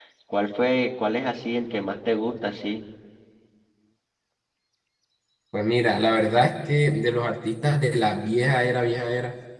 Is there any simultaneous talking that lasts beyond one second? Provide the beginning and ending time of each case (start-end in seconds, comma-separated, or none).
none